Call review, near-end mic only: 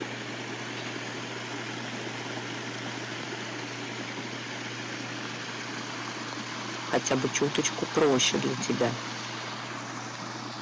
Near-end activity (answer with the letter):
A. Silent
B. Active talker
B